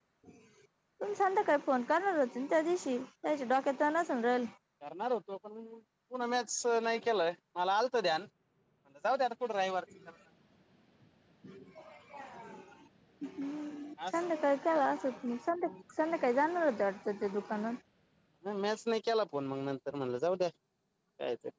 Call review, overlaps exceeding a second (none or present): none